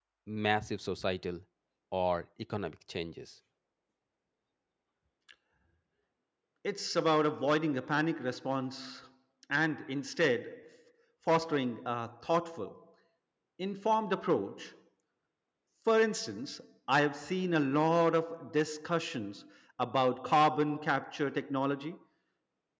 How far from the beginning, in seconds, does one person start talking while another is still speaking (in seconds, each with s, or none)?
none